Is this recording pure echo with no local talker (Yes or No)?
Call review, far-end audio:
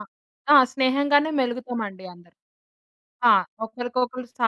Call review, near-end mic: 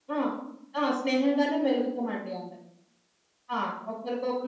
Yes